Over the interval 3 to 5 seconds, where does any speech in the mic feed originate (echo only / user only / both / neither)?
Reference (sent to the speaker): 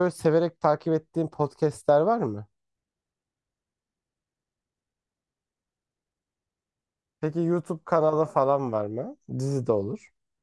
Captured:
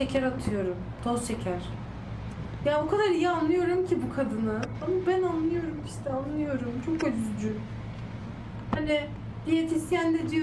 user only